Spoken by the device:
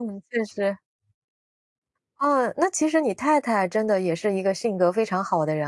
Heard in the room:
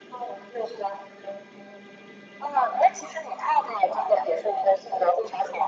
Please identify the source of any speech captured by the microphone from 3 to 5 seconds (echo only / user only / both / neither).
echo only